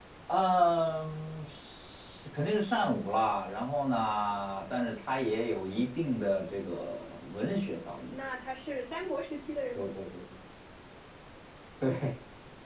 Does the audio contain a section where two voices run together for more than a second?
No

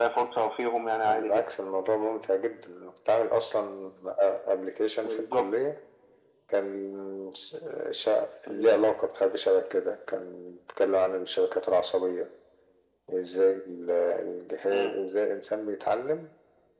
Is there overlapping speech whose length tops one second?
No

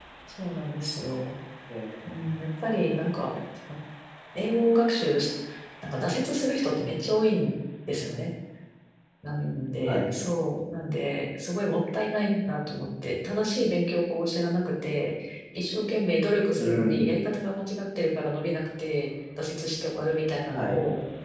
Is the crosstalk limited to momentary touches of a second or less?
Yes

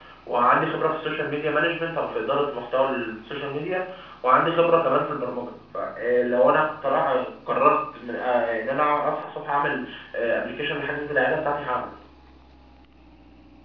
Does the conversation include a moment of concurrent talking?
No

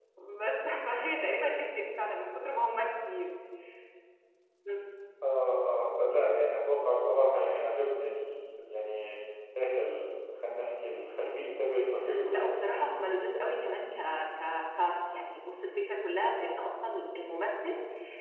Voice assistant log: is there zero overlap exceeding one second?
Yes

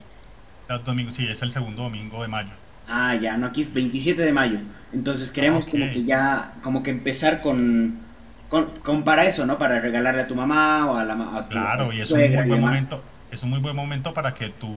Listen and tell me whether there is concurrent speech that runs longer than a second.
Yes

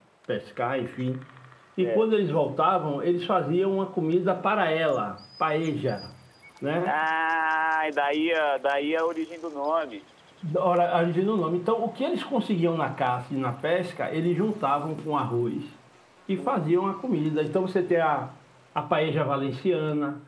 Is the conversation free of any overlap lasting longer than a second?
Yes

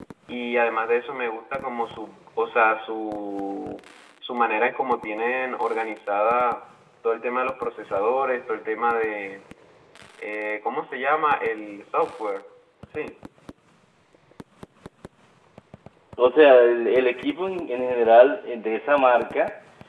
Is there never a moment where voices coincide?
Yes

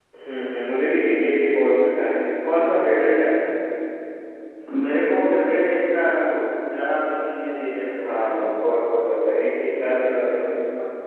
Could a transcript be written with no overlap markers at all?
Yes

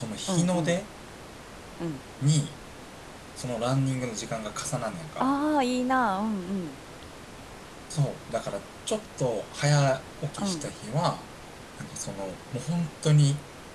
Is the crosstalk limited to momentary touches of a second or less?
Yes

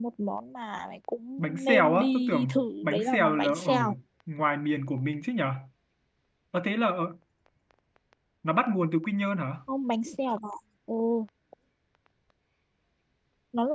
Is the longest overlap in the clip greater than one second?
Yes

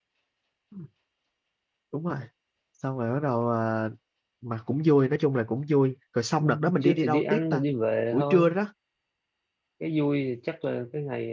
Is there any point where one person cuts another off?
Yes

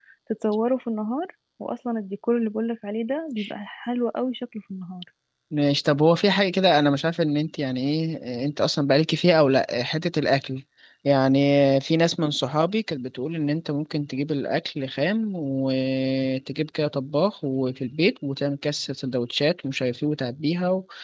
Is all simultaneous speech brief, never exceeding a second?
Yes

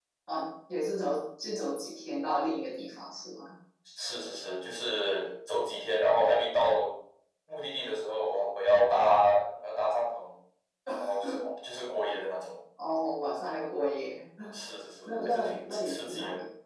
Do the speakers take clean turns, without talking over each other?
No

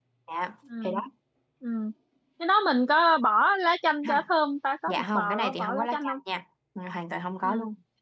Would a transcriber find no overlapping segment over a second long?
No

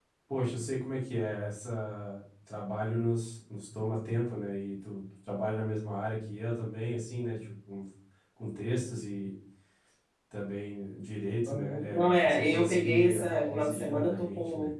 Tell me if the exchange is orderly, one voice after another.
No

